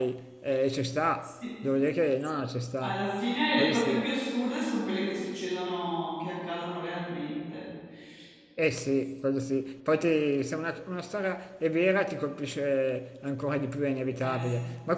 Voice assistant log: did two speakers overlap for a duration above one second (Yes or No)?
No